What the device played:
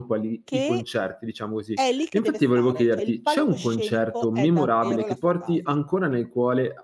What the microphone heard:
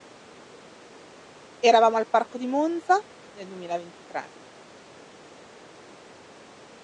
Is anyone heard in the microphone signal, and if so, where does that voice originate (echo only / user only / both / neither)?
user only